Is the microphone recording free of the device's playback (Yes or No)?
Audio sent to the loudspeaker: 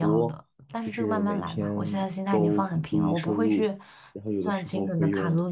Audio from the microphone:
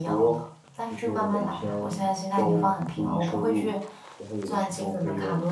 No